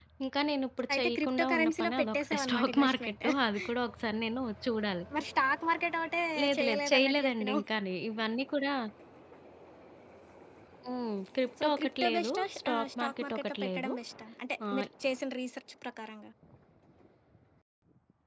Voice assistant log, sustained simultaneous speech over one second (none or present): present